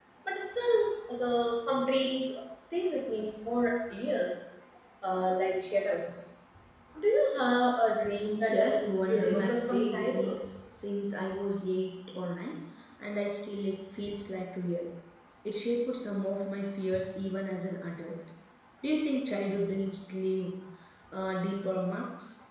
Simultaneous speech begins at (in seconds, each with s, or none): 8.4 s